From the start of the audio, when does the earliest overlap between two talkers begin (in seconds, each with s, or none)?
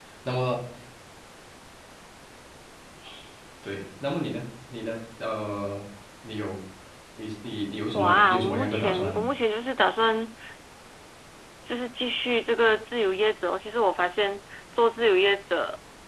7.9 s